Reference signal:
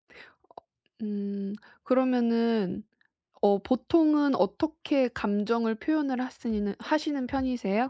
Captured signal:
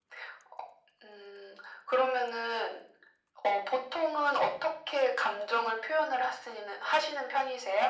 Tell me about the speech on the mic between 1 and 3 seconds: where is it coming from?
echo only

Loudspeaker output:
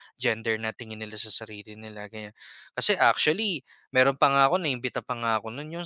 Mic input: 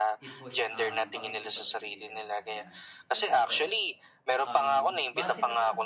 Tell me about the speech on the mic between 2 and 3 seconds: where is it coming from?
both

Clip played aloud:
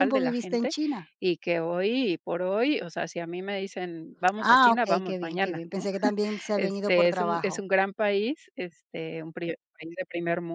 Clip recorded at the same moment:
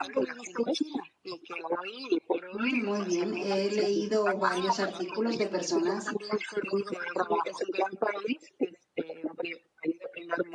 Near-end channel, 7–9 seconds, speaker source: echo only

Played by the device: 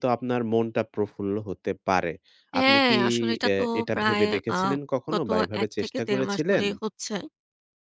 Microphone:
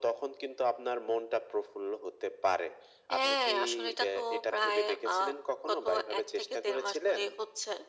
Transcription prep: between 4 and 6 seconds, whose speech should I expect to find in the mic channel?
echo only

